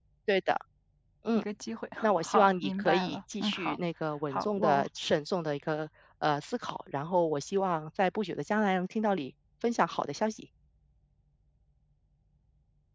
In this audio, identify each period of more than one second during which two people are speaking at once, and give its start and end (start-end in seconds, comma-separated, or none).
2.0-3.8